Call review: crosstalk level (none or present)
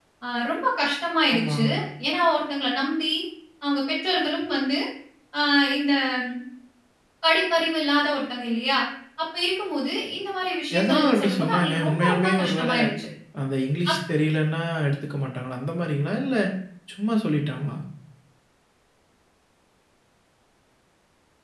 present